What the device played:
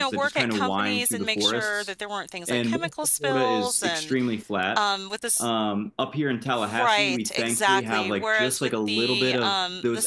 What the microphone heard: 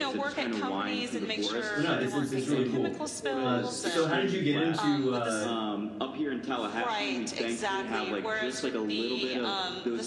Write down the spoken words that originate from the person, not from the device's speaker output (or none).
But no, it's it's it's really cool. Uh, so how did you get into uh,